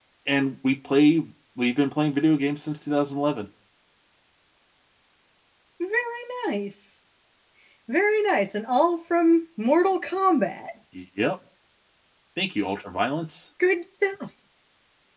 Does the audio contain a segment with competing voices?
No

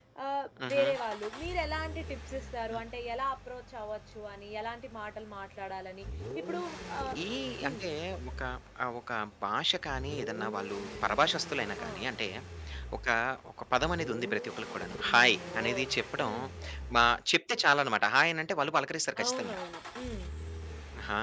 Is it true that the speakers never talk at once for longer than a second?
Yes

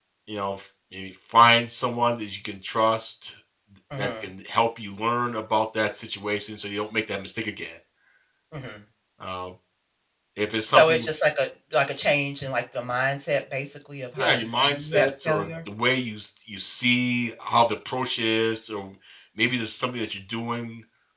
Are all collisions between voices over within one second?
No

